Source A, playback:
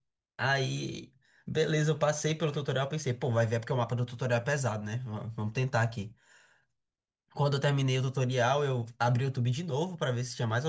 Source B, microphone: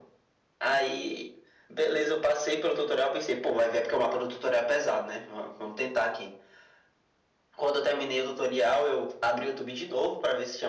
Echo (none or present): present